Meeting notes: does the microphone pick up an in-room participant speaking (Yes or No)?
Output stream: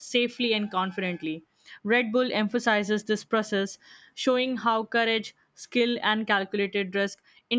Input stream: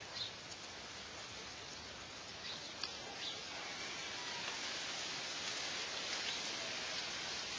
No